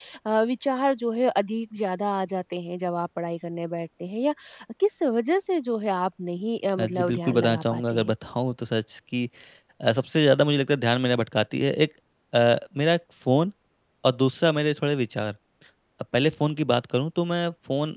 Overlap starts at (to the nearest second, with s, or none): 7 s